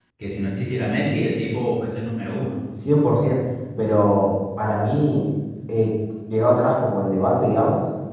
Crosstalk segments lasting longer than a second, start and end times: none

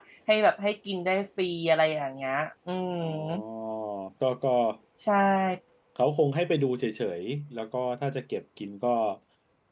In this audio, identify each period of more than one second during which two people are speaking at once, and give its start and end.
none

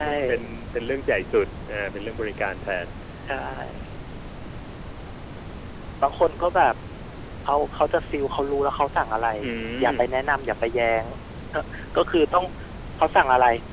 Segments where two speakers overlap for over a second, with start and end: none

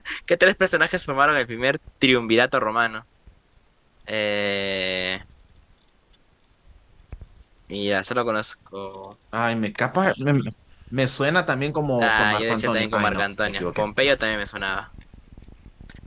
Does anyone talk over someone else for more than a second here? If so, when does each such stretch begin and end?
12.0-14.1

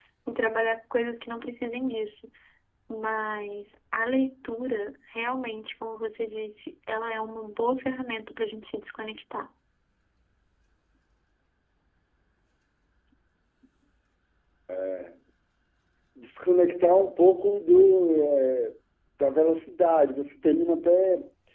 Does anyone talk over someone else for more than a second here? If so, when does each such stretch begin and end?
none

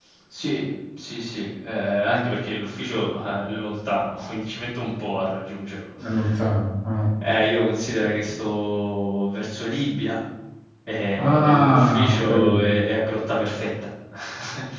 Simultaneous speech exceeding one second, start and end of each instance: 11.2-12.7

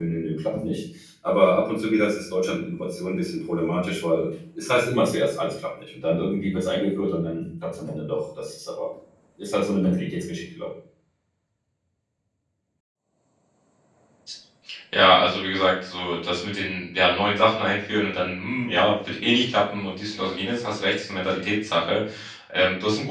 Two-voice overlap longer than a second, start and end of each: none

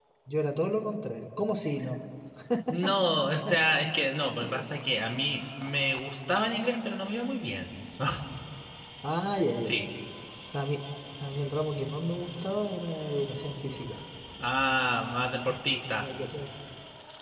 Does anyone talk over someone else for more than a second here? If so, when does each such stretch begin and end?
none

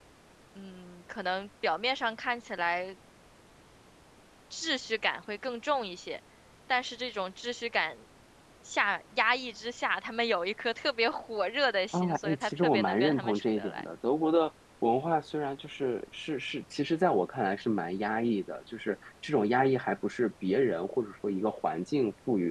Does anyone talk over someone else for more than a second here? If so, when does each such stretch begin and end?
11.9-13.9

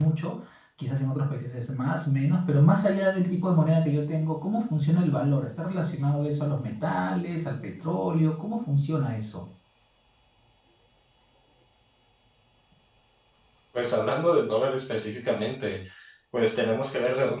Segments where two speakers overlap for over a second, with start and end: none

